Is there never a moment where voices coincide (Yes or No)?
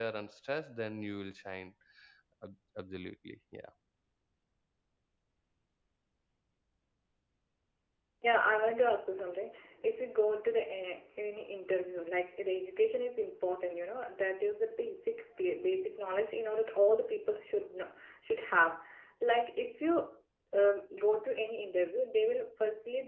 Yes